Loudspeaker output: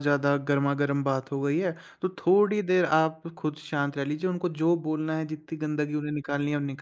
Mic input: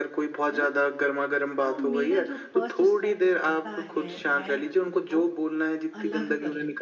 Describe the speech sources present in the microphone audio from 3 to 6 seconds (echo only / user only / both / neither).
both